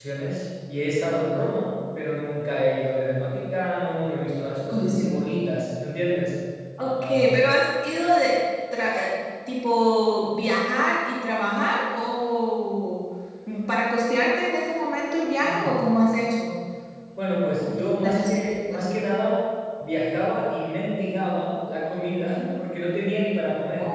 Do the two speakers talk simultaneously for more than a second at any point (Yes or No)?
Yes